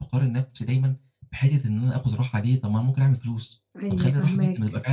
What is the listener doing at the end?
listening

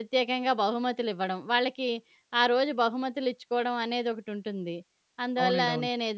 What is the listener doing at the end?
listening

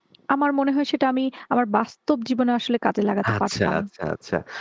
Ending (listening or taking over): taking over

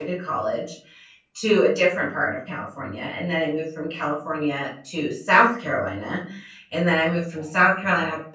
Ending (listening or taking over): listening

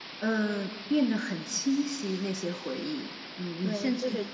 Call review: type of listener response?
taking over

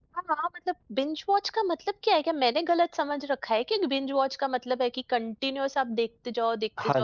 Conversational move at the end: taking over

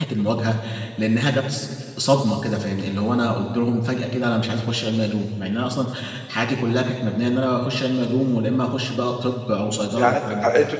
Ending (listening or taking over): taking over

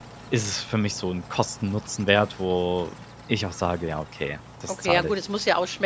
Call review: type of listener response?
taking over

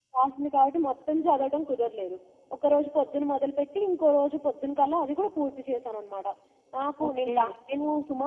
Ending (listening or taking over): listening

